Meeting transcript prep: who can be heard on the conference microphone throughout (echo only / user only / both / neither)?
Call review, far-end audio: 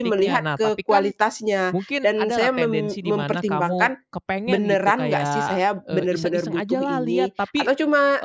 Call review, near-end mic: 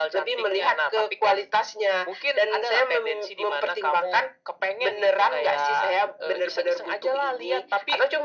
echo only